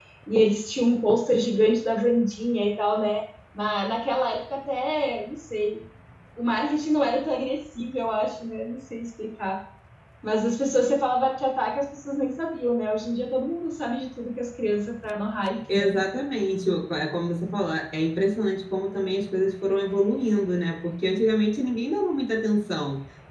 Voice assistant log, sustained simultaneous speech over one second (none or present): none